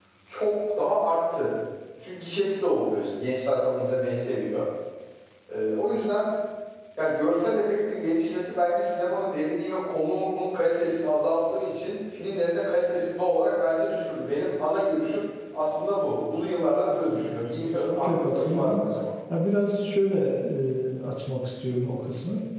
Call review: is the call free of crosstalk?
No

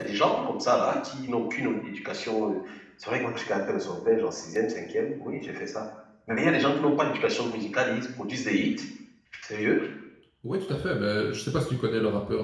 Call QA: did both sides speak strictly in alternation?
Yes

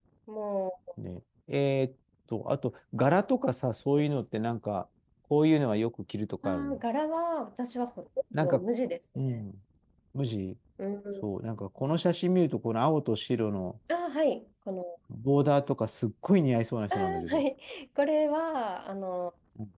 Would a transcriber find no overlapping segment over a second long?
Yes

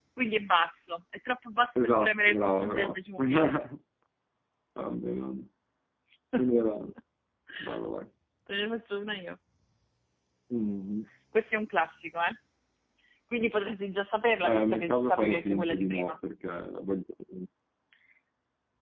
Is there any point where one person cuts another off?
Yes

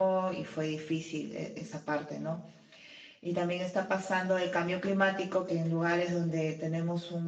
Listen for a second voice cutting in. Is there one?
No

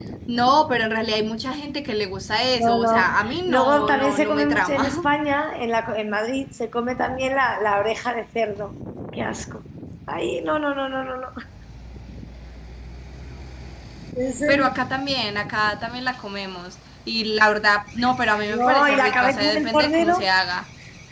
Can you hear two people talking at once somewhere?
Yes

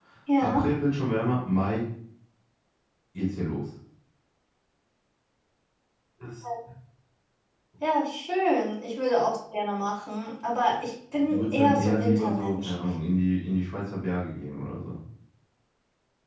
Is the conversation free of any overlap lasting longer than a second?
No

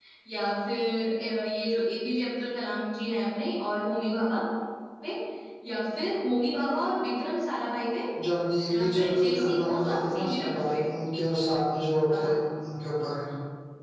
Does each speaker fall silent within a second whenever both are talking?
No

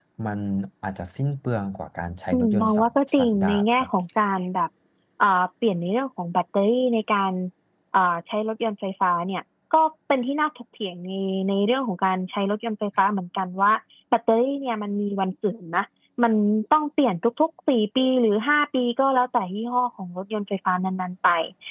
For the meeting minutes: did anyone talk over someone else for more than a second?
Yes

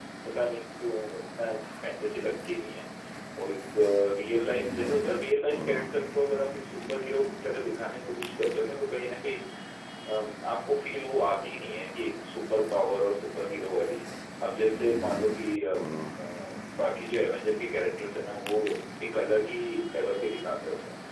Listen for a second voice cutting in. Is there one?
No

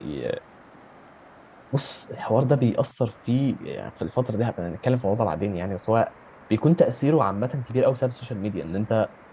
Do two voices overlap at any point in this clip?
No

